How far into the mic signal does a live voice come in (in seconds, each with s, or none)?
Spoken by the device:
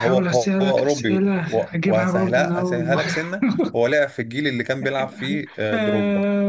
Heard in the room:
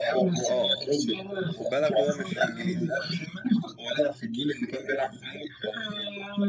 0.4 s